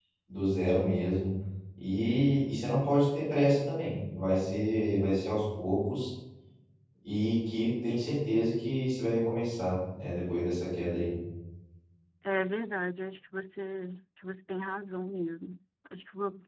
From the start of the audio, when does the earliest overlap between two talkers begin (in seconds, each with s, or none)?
none